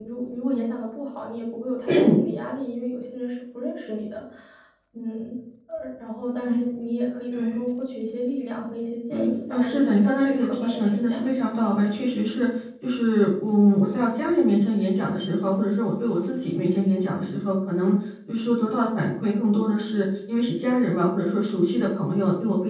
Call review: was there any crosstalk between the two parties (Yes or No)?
Yes